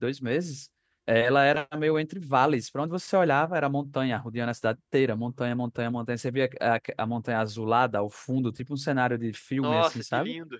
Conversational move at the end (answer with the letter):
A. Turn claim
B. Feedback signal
A